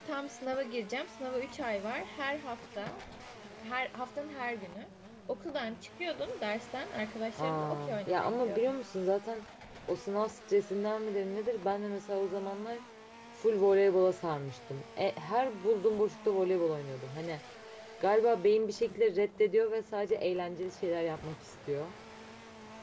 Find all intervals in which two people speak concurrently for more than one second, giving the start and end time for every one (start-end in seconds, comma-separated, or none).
7.4-8.7